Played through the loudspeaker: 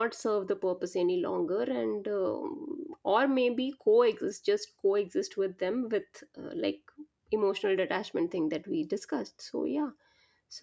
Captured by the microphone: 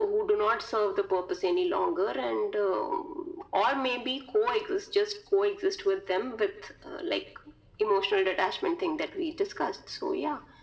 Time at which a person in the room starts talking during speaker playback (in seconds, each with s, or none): none